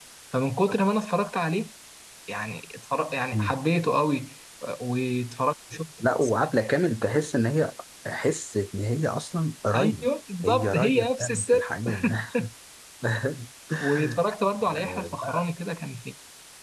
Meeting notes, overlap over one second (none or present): present